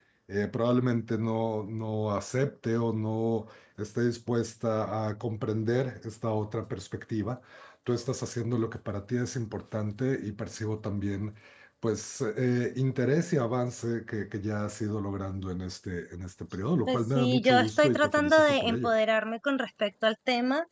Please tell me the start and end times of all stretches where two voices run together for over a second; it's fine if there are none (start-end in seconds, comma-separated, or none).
16.9-18.9